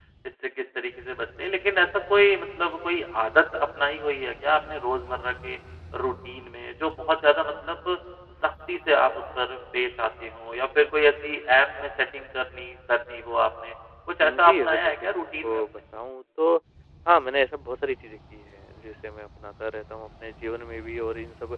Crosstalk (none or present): present